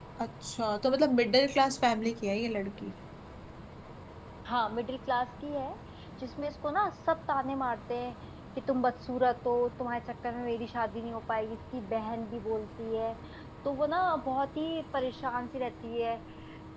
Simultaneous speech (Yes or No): No